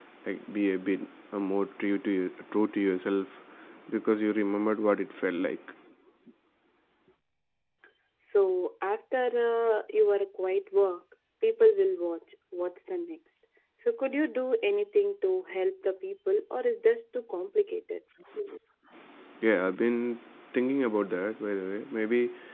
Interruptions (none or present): none